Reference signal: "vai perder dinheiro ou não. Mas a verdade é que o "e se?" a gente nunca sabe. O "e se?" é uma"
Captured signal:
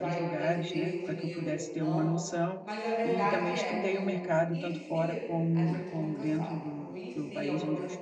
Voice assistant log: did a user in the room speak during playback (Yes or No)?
Yes